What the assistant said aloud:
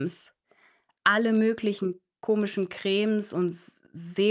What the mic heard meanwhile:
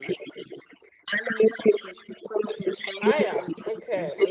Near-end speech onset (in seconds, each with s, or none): 3.0 s